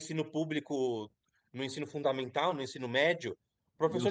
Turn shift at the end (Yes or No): No